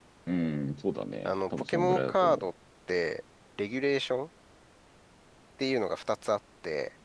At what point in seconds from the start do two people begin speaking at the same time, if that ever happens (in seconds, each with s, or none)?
1.2 s